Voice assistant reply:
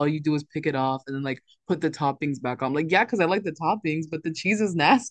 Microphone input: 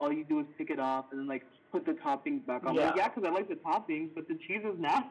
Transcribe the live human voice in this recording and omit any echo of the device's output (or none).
Yeah.